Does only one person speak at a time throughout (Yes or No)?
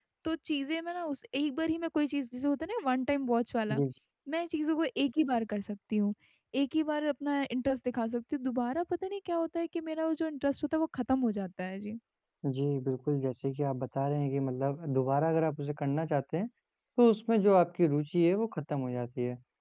Yes